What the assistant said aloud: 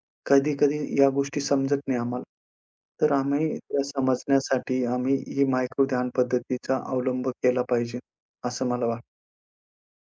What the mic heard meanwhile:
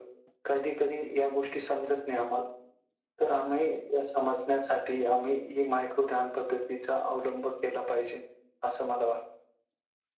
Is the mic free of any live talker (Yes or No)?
Yes